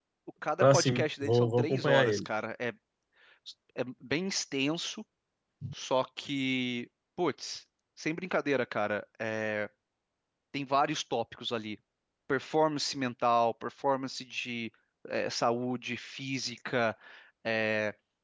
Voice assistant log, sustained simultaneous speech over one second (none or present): present